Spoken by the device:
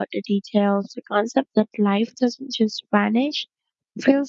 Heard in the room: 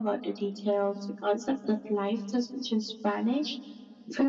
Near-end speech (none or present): none